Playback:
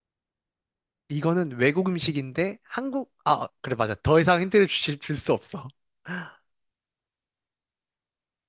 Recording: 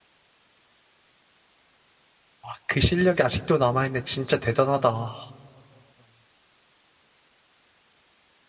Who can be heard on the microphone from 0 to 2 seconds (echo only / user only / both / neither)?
neither